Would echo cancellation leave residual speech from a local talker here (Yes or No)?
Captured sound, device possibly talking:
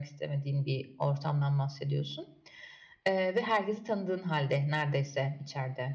No